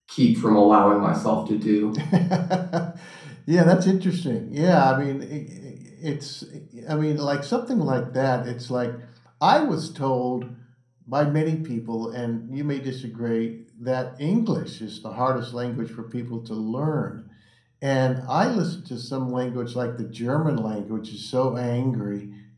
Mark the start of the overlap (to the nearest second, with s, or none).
none